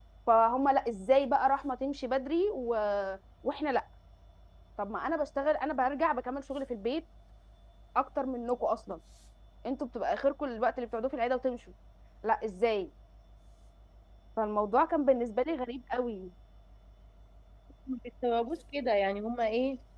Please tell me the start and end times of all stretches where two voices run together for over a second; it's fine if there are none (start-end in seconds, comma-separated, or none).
none